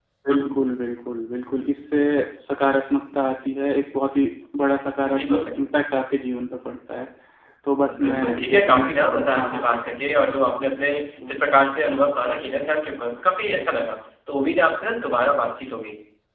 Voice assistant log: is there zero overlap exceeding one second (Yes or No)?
No